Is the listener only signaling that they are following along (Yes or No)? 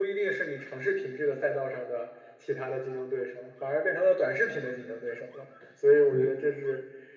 Yes